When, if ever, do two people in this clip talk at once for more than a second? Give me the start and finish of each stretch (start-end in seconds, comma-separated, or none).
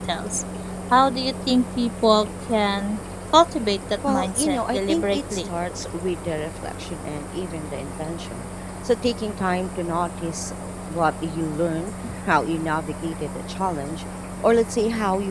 4.1-5.5